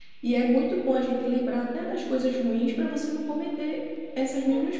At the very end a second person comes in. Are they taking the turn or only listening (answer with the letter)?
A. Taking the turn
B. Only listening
A